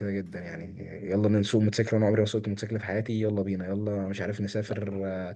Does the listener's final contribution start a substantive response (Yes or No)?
No